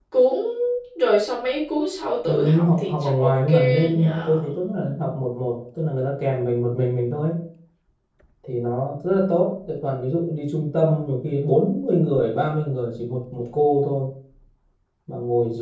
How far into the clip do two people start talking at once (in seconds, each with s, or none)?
2.2 s